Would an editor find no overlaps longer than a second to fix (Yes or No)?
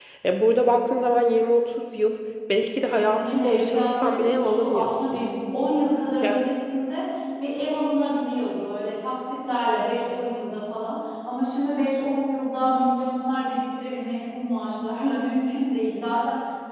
No